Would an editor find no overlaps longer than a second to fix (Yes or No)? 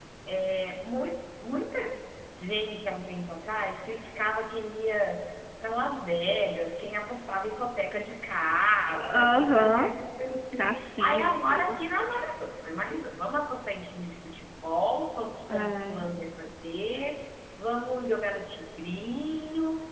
No